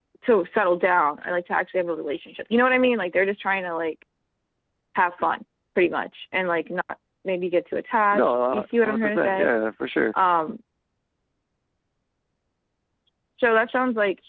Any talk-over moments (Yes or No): Yes